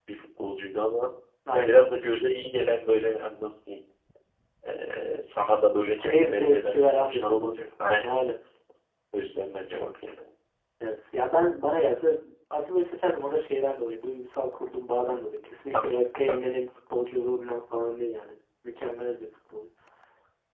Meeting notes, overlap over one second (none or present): present